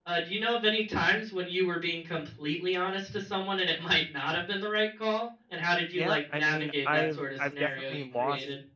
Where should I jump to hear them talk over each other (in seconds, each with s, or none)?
6.0 s